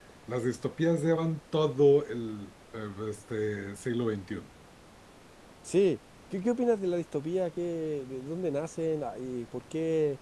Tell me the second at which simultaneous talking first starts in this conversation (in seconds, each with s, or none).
none